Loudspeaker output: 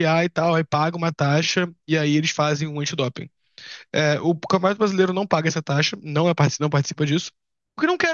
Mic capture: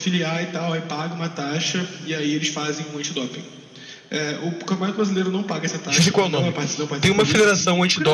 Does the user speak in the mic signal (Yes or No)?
Yes